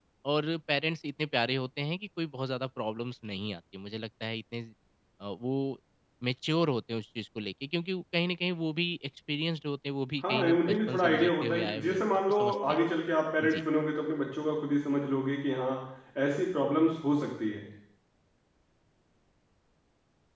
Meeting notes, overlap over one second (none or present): present